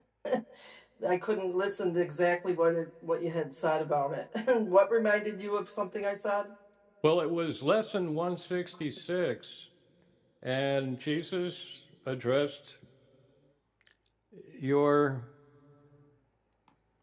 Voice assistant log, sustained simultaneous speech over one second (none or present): none